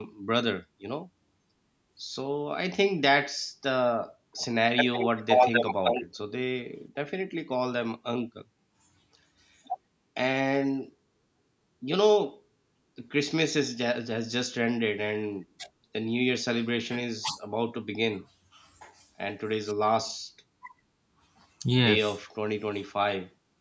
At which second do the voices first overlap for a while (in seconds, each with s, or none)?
4.8 s